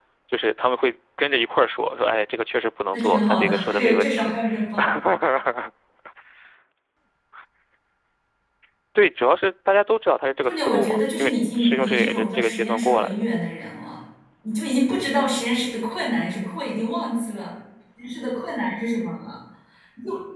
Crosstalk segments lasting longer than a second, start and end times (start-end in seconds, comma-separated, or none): 2.9-4.3, 10.4-13.2